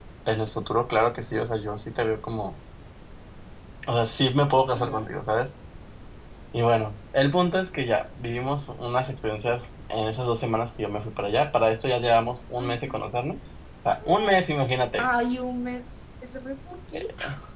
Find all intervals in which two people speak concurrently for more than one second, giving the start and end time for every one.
none

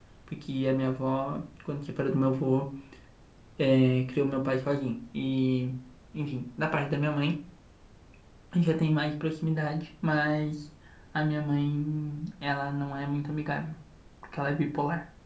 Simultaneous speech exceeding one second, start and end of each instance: none

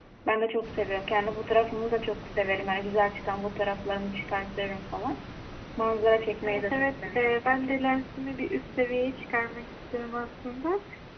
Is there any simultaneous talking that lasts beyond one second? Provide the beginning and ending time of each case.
6.4-8.0

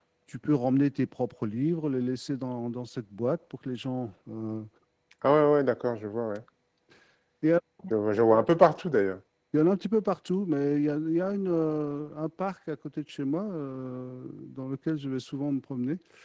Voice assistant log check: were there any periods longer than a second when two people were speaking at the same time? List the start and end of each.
none

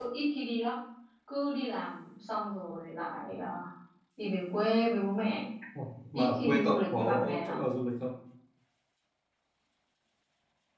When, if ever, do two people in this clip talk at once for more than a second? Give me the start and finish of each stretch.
6.1-7.6

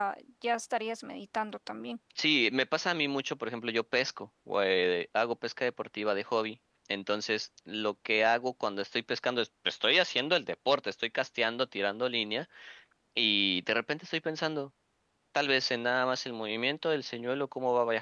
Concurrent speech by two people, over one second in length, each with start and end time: none

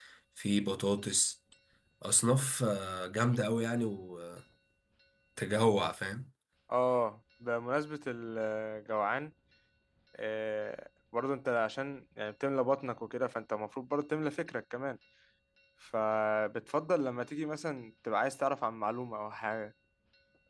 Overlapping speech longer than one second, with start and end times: none

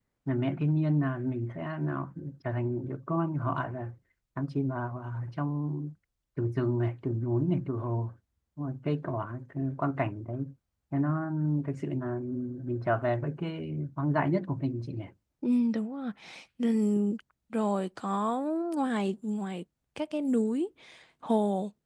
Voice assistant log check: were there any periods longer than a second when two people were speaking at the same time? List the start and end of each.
none

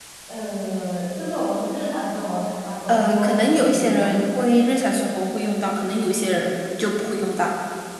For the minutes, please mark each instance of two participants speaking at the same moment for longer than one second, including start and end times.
2.9-4.1

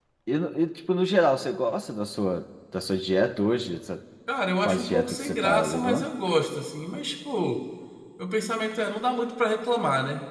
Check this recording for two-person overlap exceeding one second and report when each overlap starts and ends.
4.6-6.1

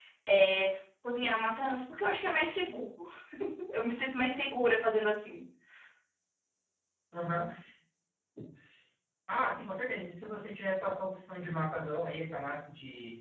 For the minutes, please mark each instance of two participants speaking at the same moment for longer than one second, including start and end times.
none

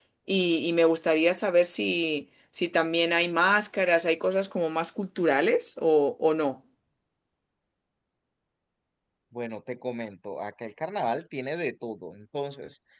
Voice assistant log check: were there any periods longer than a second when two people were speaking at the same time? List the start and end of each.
none

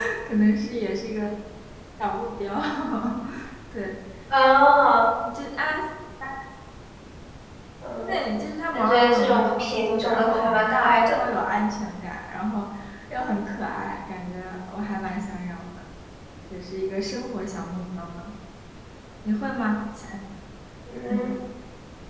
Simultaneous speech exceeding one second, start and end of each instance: 8.7-11.2

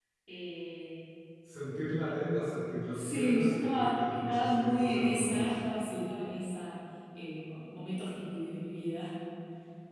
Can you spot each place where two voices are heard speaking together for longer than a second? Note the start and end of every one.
2.9-5.6

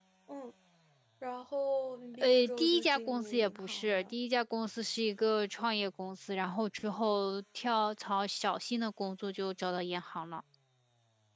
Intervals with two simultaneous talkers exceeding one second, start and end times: 2.2-4.1

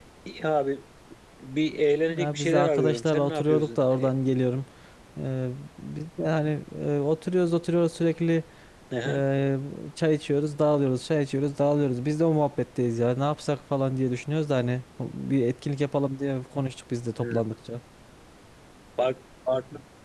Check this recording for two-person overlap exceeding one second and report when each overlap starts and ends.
2.1-4.1

